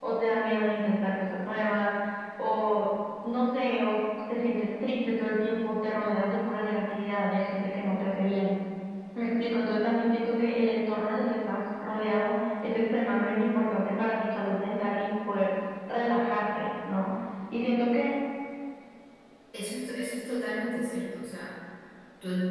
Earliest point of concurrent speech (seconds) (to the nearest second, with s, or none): none